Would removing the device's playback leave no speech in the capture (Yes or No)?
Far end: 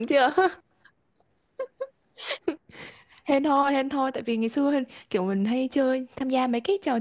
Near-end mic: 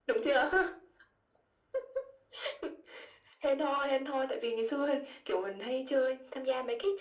Yes